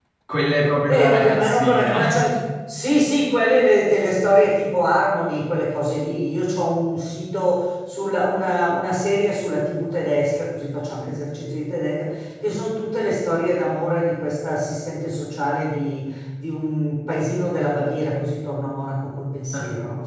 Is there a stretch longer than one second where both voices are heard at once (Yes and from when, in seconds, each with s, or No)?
Yes, from 0.9 s